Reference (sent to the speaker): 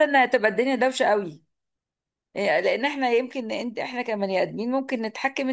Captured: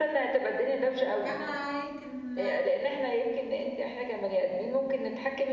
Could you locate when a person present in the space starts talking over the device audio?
1.2 s

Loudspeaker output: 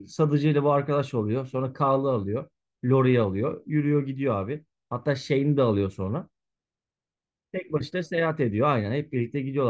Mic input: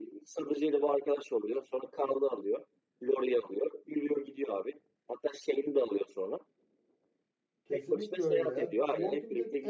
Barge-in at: 7.6 s

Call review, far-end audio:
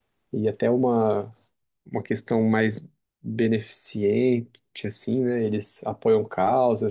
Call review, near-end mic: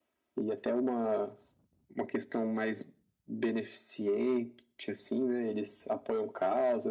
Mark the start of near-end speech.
none

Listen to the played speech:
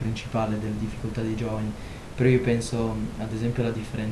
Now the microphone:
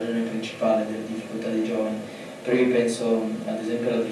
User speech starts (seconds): none

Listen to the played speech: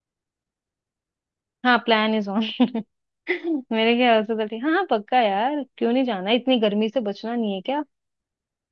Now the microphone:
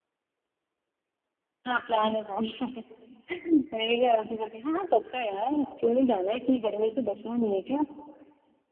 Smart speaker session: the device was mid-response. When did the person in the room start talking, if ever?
none

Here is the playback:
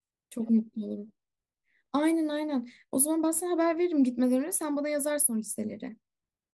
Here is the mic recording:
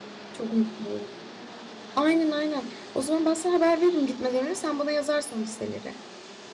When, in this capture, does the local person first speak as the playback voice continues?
none

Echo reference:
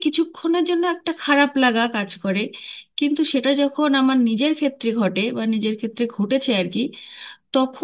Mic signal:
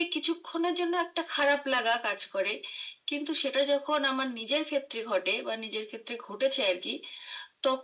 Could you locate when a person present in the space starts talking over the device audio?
none

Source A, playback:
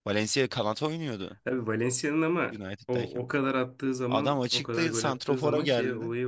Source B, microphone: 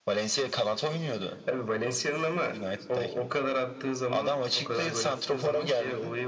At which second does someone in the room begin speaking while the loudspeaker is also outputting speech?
none

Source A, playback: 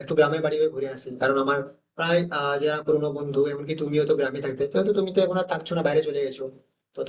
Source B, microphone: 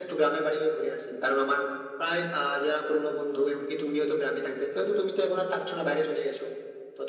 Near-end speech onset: none

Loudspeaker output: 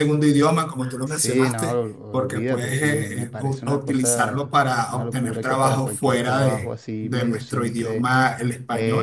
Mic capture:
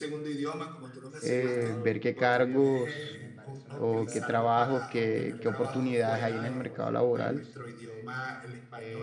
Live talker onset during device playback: 1.2 s

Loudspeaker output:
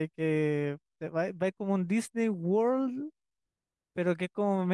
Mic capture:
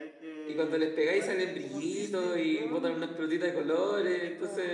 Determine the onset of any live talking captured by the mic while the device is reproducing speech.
0.4 s

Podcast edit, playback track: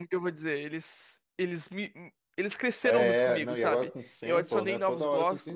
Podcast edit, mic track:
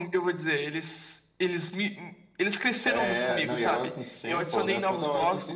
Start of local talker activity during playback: none

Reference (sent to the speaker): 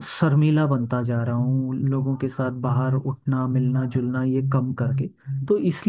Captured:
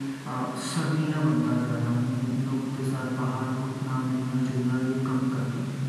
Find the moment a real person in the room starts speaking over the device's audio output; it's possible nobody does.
none

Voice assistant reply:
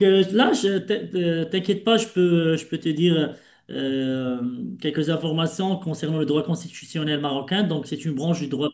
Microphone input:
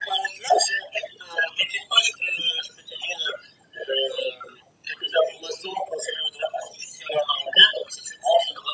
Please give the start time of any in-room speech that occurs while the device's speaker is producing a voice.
none

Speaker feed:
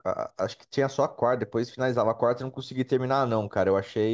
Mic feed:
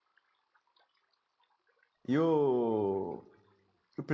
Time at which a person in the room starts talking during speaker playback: 2.1 s

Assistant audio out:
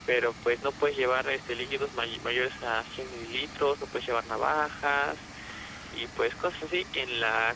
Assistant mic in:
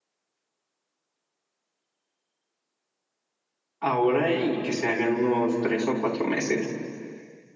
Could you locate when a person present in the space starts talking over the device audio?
3.8 s

